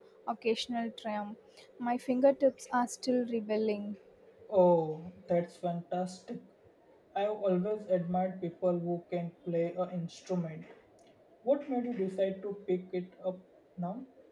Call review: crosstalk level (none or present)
none